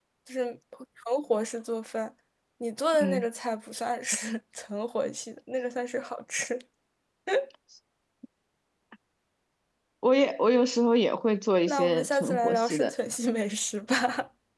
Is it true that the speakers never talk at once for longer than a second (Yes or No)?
No